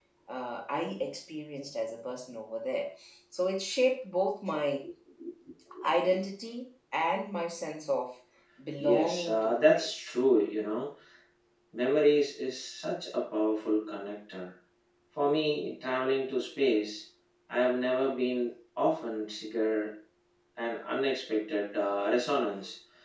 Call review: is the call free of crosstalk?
No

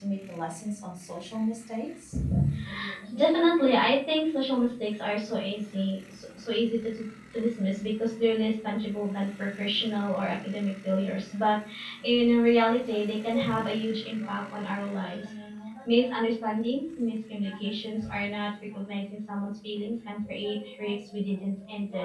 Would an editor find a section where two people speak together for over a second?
No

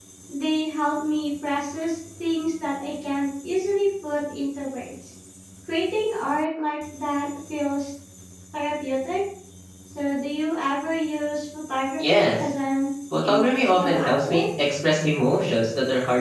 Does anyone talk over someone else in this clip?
Yes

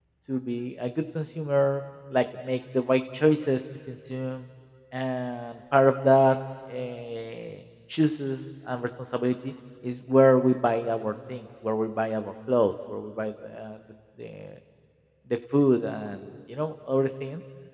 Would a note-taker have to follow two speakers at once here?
No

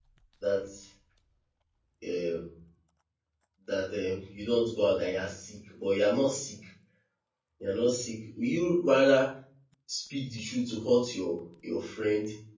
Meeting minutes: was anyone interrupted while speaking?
No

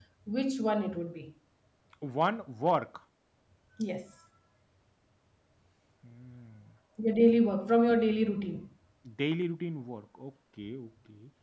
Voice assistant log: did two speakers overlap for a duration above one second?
No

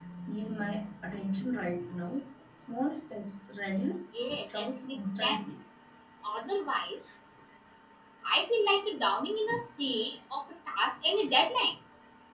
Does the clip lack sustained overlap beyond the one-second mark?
No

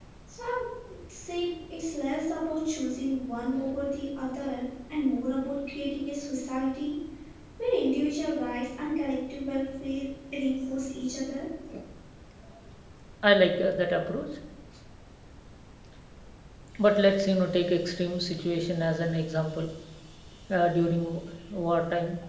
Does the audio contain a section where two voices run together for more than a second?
No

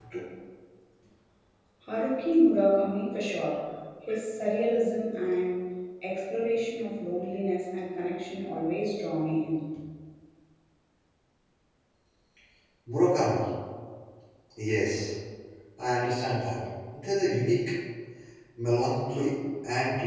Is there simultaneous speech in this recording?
No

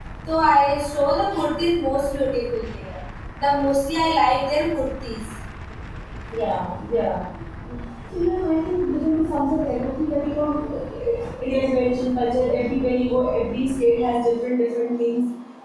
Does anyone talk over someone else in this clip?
No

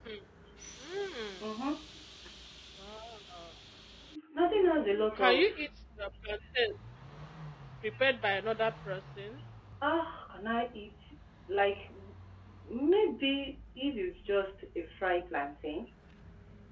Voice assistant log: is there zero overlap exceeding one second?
Yes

